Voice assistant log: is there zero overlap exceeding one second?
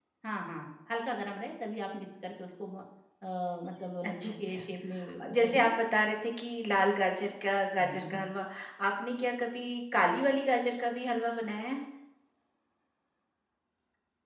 Yes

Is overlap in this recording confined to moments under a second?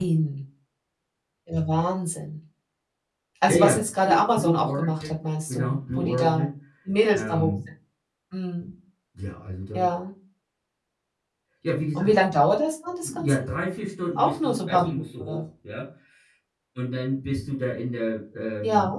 No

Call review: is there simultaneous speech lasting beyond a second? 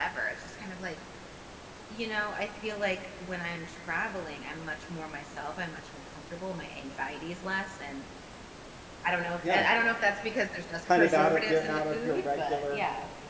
Yes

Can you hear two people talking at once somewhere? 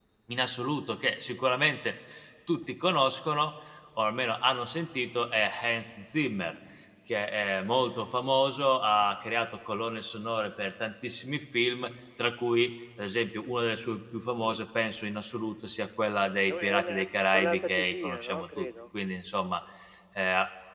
Yes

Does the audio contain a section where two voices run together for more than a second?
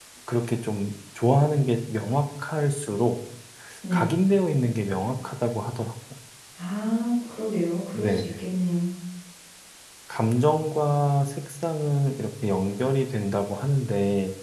No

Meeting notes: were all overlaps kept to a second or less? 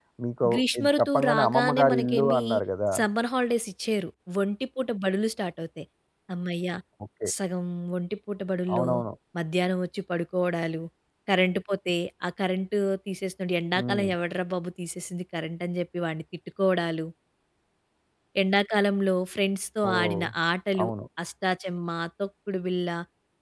No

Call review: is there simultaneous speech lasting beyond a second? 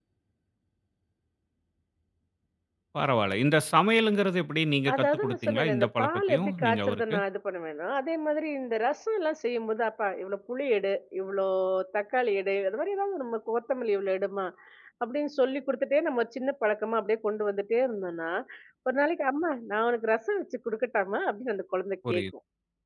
Yes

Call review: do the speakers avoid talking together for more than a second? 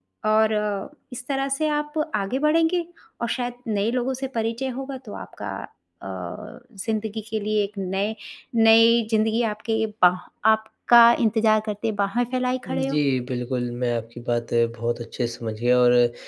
Yes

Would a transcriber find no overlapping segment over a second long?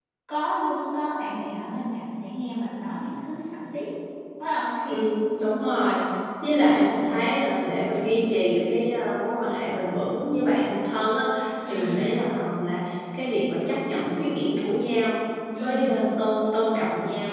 Yes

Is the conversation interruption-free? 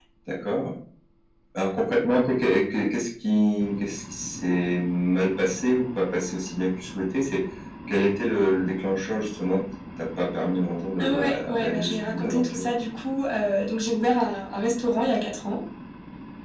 No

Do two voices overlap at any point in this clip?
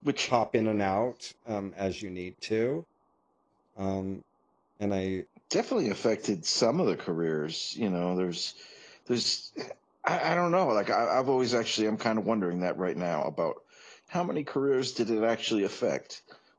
No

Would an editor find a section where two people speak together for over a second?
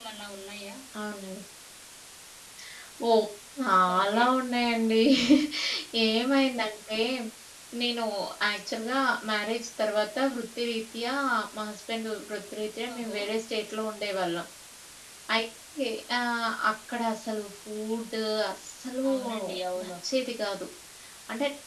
No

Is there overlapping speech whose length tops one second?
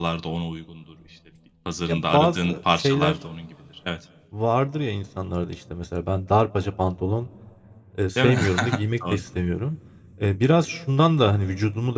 Yes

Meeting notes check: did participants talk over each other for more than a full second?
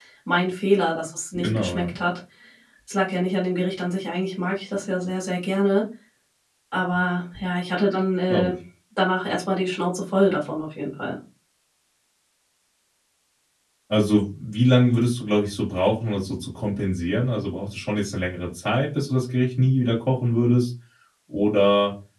No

